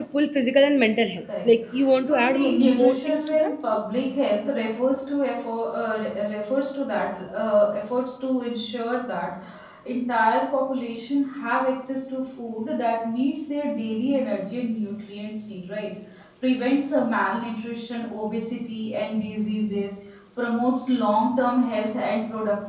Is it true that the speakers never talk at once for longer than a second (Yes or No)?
No